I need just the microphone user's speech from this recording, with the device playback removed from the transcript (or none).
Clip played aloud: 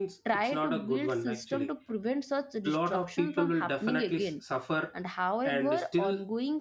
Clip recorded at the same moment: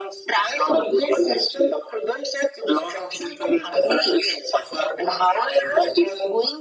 none